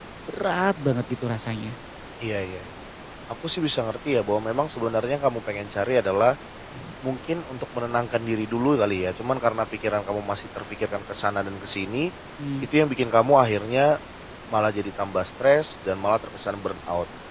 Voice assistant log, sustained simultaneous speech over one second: none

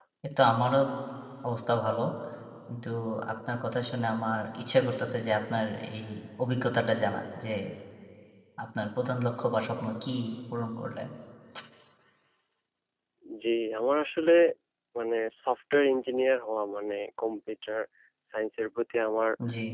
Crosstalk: none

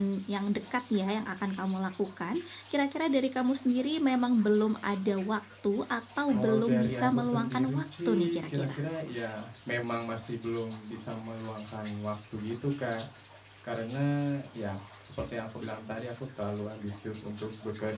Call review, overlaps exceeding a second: present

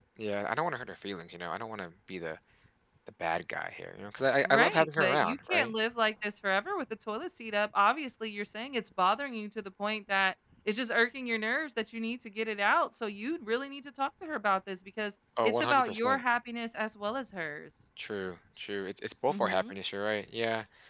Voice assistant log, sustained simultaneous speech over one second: present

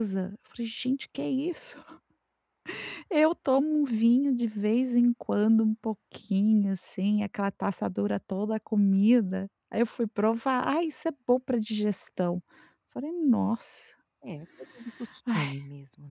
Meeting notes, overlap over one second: none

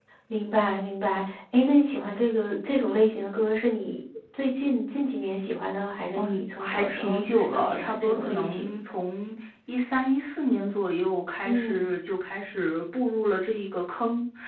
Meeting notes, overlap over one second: present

